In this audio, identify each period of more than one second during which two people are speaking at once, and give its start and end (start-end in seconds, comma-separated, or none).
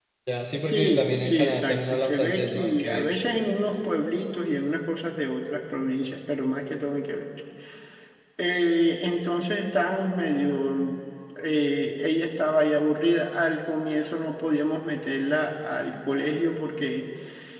0.6-3.1